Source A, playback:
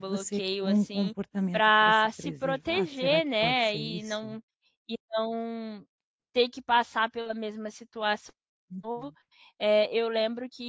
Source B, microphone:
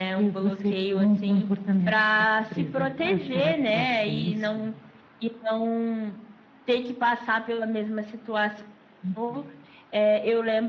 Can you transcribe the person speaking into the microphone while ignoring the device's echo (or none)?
none